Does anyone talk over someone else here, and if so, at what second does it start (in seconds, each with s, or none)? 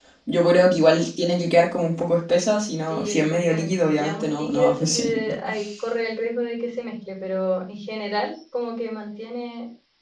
2.9 s